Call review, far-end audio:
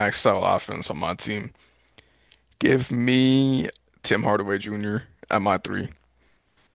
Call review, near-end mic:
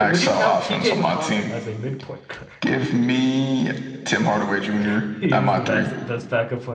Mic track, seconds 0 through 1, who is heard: both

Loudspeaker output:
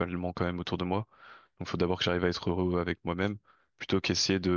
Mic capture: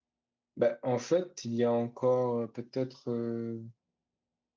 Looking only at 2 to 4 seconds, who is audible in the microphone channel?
user only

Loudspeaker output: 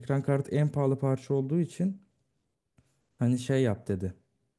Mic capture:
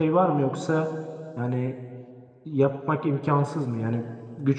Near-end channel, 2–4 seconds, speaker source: user only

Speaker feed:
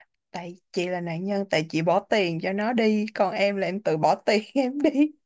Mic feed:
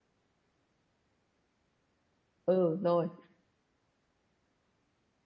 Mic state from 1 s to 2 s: neither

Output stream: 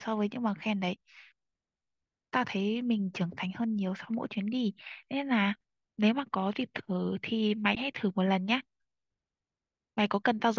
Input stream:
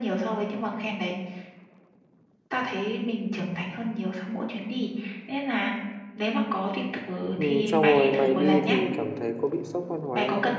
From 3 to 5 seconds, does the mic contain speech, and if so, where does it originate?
echo only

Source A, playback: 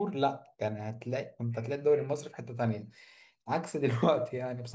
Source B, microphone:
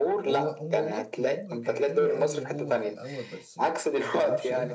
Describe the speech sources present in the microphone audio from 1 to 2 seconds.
both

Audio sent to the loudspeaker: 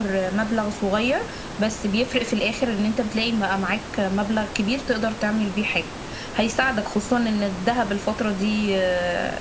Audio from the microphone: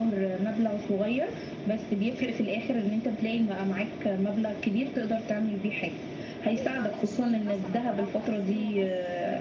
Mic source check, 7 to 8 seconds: both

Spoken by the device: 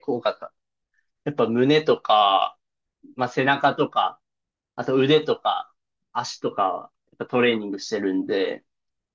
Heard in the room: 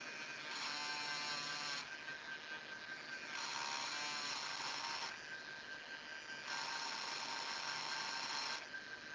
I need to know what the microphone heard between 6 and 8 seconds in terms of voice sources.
neither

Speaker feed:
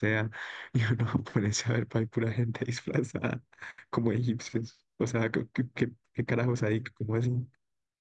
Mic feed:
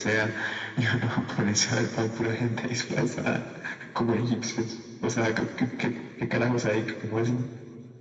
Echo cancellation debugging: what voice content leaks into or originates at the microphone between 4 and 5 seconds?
echo only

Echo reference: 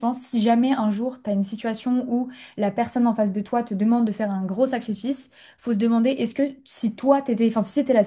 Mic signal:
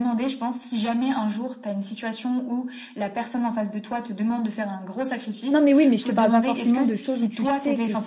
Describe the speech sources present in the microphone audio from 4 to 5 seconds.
echo only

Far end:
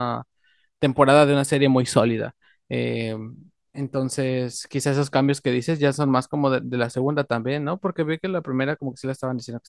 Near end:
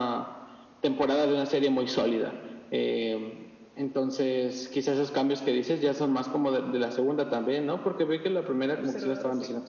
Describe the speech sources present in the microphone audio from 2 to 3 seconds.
echo only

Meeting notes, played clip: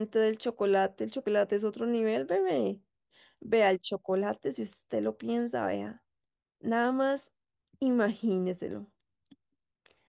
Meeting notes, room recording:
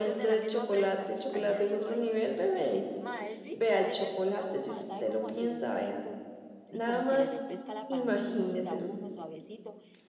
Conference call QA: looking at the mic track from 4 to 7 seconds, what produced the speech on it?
both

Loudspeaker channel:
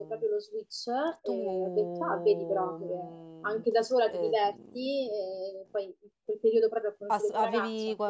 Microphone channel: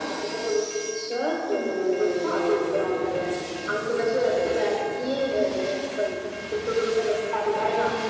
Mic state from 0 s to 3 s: echo only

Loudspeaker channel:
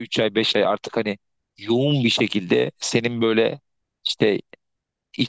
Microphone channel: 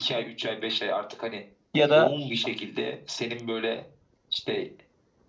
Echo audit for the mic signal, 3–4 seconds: echo only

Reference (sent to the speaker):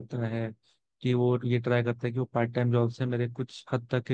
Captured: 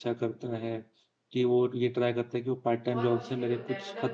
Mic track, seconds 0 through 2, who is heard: echo only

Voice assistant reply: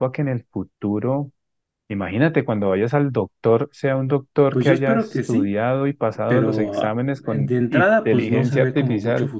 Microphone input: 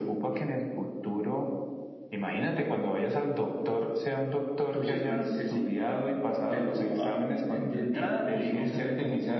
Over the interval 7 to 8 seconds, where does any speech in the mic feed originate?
both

